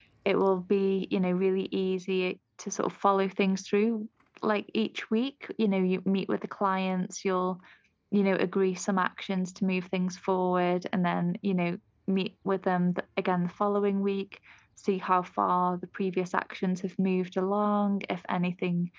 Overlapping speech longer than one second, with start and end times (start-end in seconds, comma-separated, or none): none